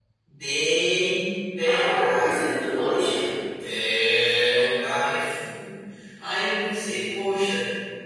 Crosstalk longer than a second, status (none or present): present